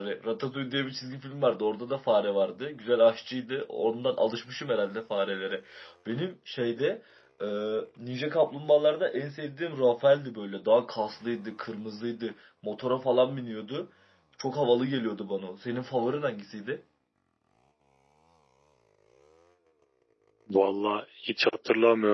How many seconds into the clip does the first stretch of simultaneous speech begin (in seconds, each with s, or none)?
none